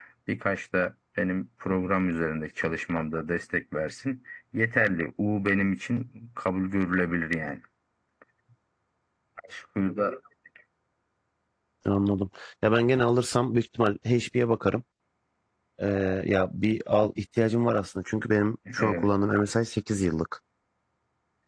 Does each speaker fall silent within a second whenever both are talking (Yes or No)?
Yes